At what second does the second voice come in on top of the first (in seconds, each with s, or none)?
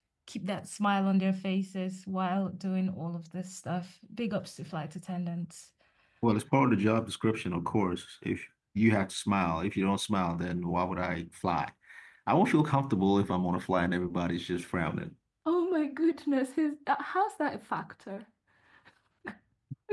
none